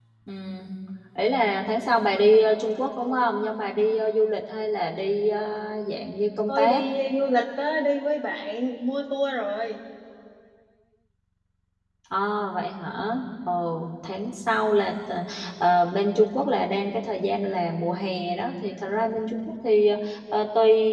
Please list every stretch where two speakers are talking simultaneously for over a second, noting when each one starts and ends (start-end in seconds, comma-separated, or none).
none